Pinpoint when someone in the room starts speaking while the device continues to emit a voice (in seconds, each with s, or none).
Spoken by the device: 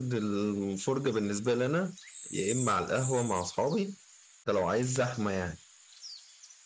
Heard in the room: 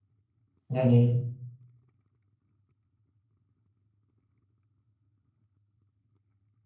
0.7 s